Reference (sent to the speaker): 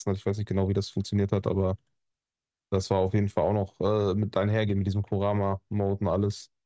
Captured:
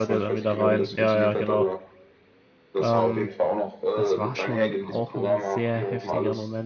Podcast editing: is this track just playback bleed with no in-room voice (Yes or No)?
No